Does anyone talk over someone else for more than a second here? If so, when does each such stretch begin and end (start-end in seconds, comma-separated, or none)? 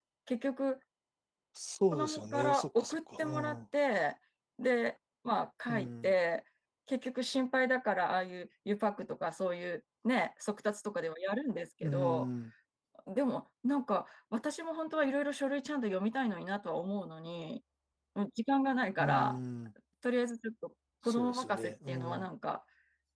1.9-3.6, 21.1-22.3